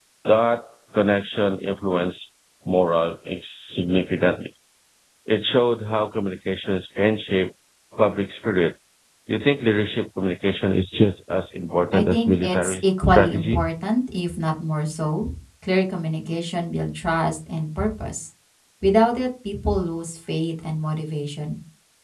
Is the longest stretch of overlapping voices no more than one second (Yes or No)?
No